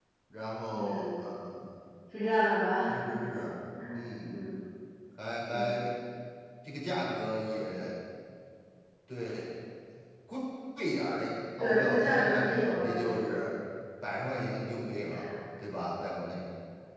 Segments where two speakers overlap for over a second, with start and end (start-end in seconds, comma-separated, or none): 11.6-13.2